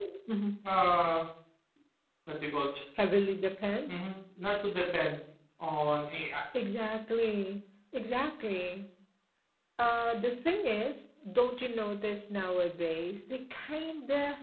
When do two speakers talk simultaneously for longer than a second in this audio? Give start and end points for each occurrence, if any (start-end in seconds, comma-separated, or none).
none